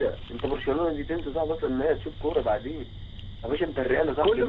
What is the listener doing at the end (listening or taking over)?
taking over